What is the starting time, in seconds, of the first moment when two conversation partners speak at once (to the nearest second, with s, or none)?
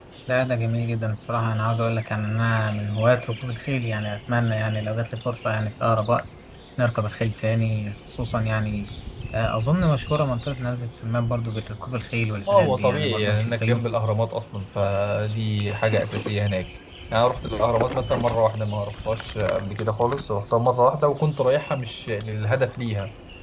12 s